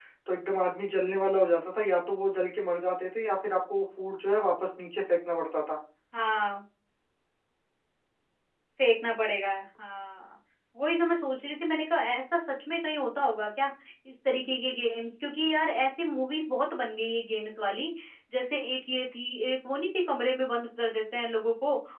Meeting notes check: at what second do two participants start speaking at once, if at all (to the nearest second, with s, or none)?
none